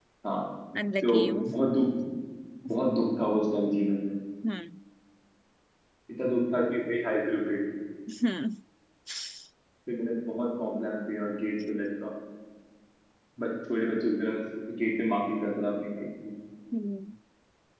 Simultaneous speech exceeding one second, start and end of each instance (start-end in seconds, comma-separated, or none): none